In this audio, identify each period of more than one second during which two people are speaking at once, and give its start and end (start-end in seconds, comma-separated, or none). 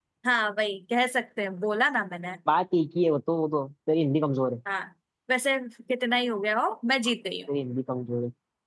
none